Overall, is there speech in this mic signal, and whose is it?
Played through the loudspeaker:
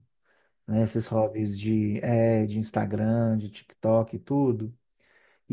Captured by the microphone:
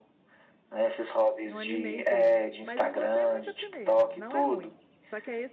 both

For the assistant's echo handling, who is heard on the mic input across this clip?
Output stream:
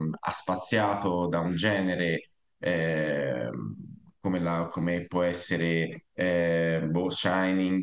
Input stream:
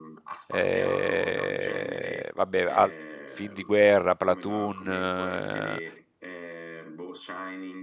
both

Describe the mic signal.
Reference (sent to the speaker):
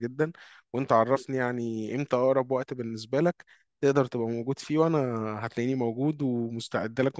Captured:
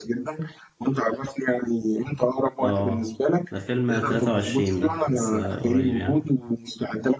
both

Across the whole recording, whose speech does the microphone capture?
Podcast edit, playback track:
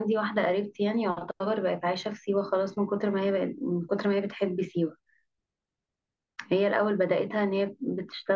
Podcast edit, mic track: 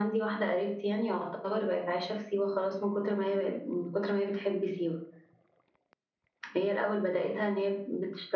echo only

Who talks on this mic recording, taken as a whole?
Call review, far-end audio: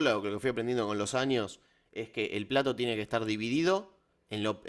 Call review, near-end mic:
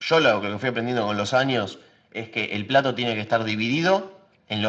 echo only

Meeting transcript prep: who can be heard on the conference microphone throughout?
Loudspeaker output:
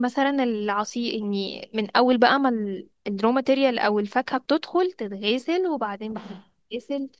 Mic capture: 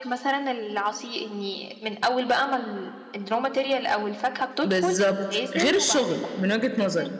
both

